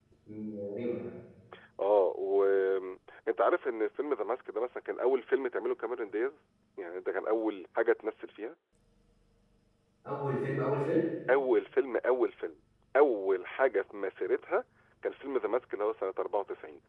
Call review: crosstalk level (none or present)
none